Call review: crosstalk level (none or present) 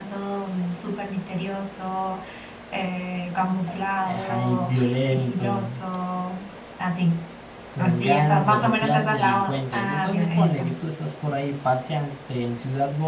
present